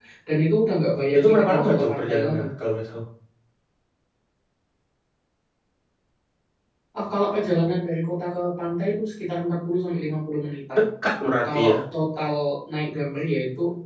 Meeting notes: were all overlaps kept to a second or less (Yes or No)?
No